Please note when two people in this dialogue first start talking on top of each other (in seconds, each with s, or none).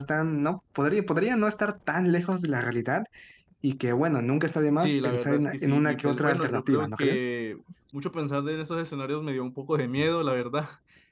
4.7 s